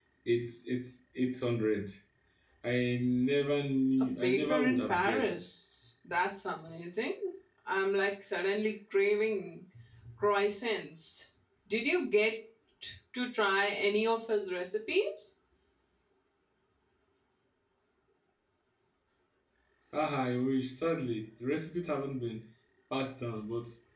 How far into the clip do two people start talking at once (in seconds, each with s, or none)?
4.0 s